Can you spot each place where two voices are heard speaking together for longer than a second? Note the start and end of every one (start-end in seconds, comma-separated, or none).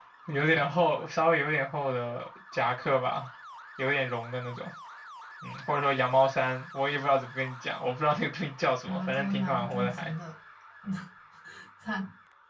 8.8-10.1